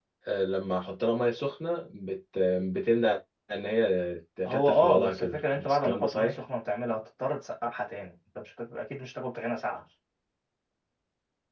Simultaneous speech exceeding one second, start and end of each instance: 4.5-6.4

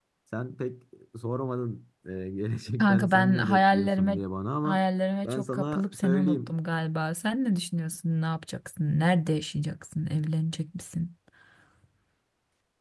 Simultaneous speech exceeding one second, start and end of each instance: 2.8-4.2, 5.2-6.5

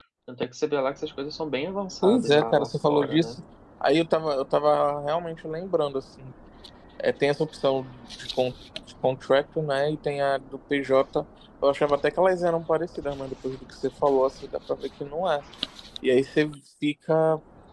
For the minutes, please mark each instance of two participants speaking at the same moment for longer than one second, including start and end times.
2.0-3.4

